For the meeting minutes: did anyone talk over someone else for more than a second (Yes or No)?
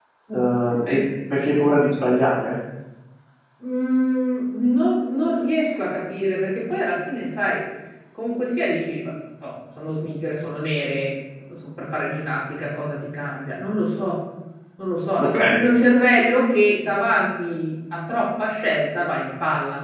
No